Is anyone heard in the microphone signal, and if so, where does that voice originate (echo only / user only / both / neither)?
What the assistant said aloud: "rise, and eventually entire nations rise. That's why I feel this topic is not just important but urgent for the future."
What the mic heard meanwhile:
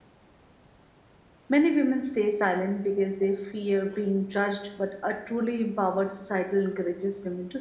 user only